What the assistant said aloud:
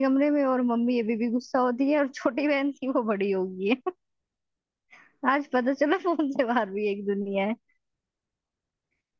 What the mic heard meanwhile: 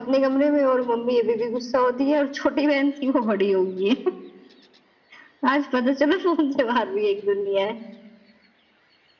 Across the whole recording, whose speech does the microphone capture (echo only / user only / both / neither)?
echo only